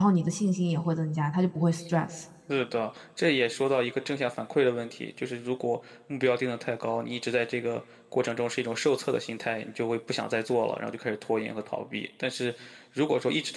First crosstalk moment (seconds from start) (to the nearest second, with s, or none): none